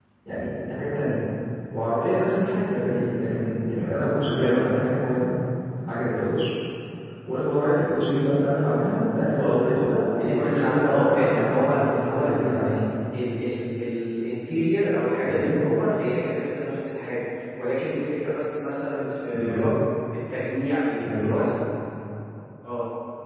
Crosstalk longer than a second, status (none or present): present